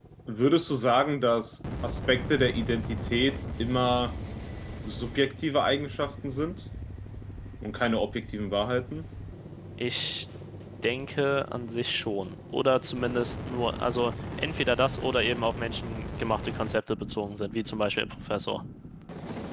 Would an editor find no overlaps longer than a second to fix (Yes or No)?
Yes